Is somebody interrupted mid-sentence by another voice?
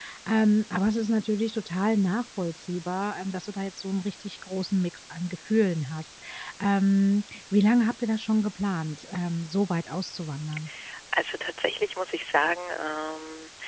No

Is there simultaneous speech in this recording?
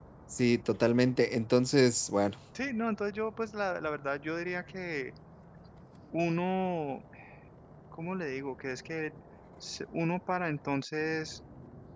No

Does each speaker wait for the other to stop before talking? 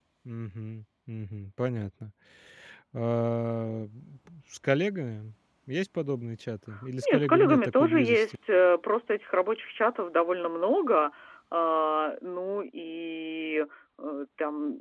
No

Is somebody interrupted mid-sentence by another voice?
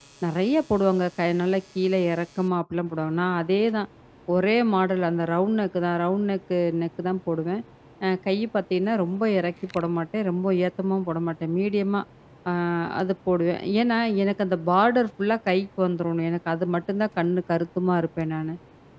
No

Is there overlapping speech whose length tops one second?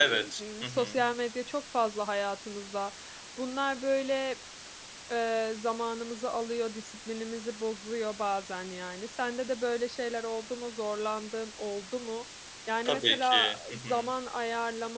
Yes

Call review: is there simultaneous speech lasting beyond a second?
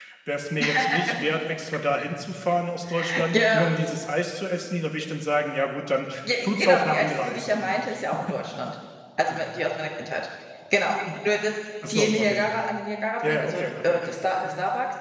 Yes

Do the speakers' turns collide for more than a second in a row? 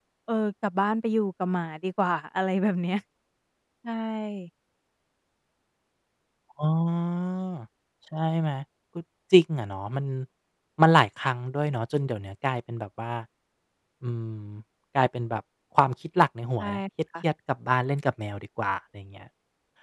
No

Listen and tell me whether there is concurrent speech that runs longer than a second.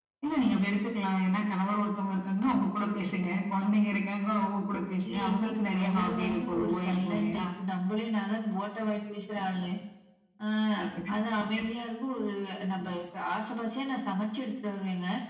Yes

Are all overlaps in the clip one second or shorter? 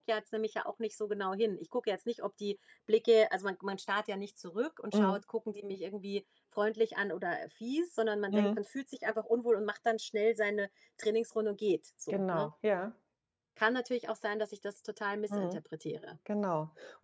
Yes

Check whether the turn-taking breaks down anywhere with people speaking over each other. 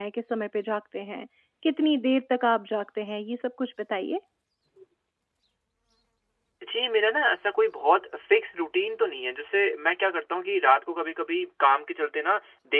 No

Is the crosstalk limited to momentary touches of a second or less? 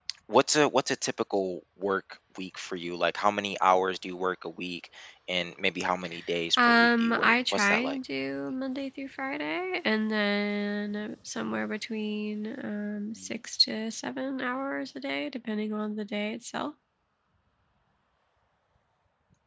No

